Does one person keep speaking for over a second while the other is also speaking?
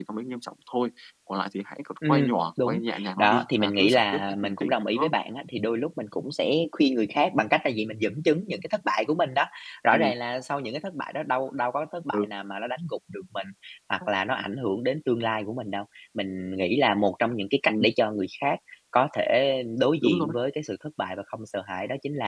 Yes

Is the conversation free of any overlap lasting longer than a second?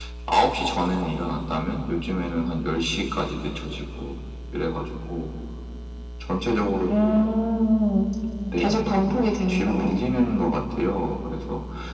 No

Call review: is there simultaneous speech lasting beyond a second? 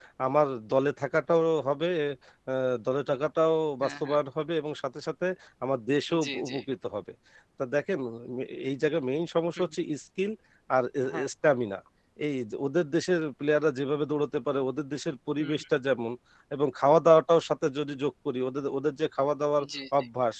No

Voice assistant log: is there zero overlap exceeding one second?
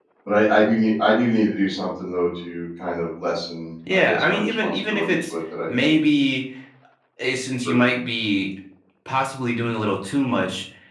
No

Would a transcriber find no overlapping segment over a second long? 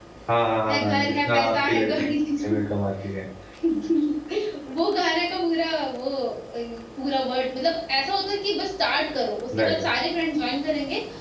No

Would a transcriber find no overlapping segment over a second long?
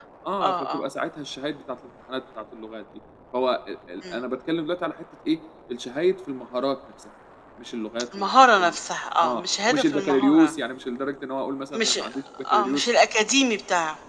No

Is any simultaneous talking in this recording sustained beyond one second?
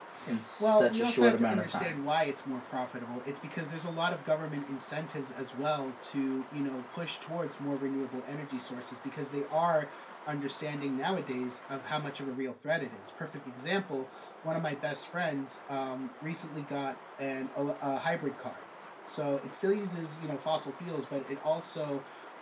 Yes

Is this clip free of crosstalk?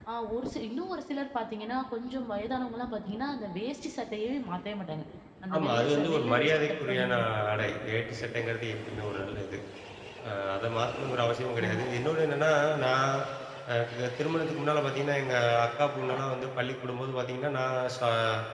No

